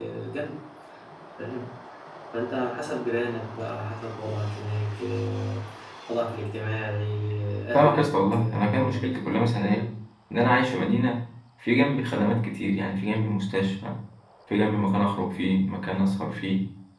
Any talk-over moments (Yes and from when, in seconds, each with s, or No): Yes, from 7.7 s